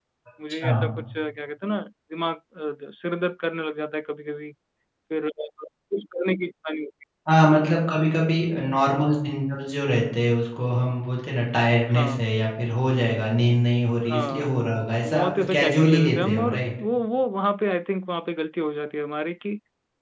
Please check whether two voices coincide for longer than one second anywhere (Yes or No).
Yes